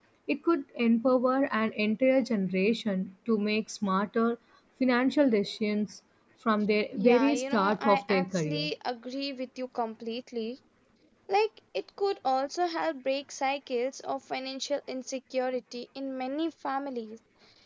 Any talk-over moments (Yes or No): Yes